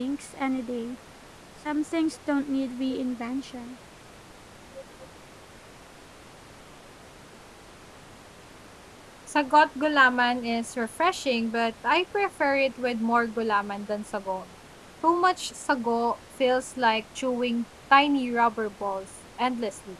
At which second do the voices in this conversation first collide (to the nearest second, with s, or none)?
none